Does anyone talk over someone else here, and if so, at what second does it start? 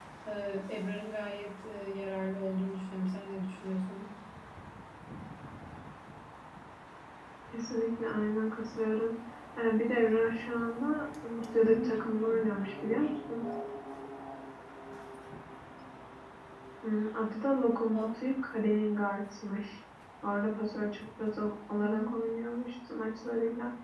11.6 s

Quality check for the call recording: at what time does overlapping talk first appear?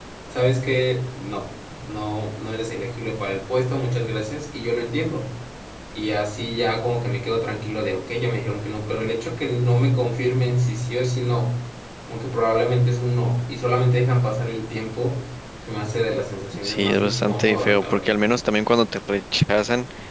16.5 s

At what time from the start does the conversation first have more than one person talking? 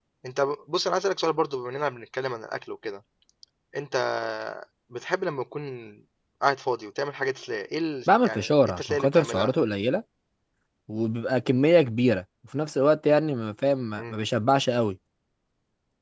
8.1 s

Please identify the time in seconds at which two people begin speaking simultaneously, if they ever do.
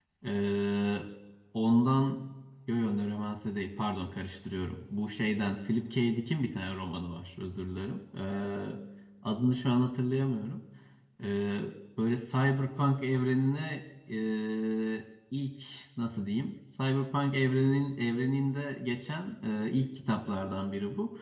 none

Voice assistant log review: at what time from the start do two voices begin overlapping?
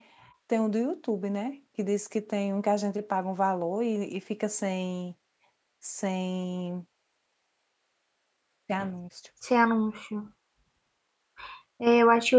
none

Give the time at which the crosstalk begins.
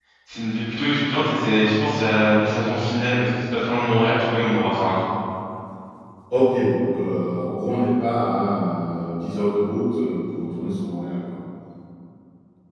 none

